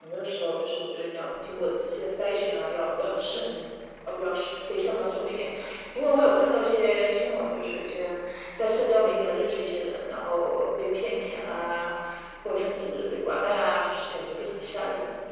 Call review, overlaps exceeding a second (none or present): none